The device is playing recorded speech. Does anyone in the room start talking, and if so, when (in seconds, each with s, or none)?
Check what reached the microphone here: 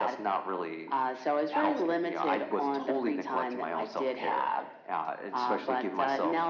none